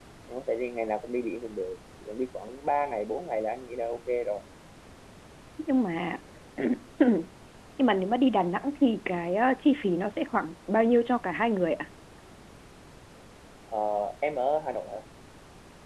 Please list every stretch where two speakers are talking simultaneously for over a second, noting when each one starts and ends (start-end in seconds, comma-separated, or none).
none